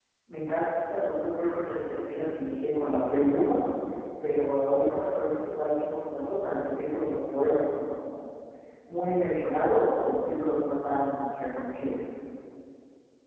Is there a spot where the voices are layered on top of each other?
No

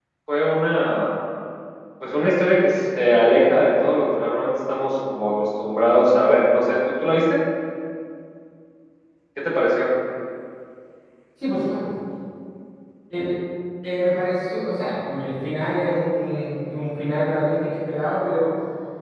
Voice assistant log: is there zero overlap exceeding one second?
Yes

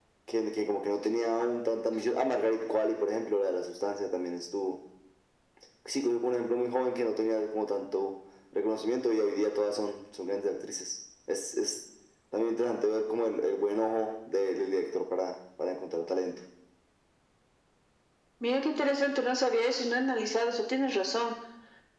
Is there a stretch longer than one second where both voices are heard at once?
No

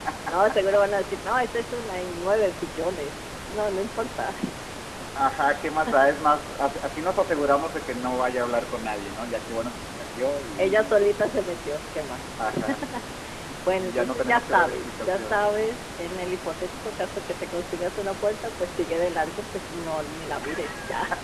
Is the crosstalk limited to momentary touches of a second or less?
No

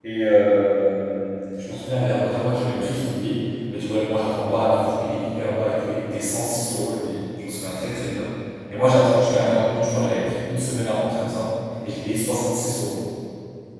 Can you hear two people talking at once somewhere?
No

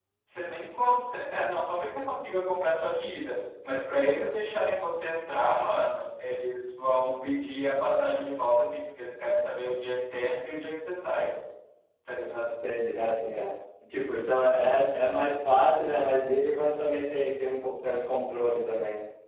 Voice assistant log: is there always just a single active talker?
Yes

